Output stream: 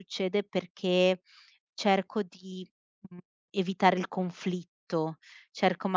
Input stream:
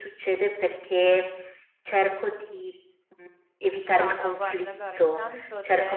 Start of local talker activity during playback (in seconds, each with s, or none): 3.9 s